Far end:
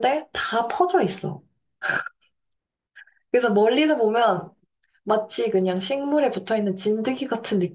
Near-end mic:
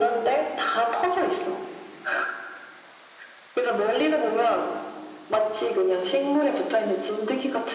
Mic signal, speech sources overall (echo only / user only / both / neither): echo only